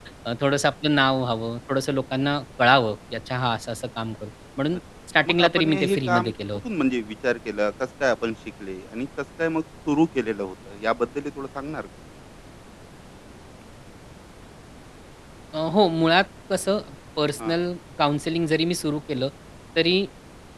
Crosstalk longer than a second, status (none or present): present